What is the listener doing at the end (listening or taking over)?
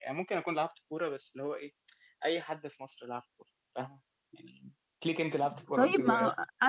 taking over